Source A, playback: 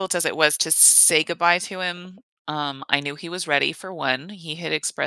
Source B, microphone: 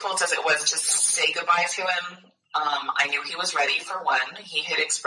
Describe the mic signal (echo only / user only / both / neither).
echo only